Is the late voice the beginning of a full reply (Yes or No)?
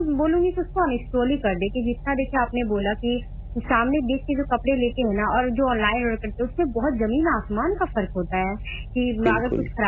No